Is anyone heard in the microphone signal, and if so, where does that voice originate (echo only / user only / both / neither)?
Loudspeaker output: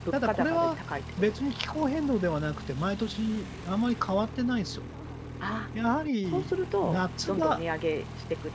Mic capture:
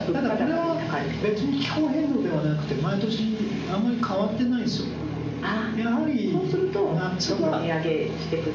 echo only